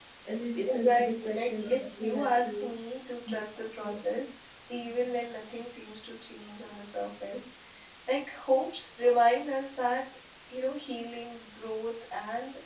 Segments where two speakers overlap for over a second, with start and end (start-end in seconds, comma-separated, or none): 0.7-2.7